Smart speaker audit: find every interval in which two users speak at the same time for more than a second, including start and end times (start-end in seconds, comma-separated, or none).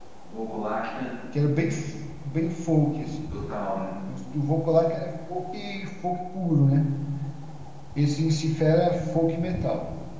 none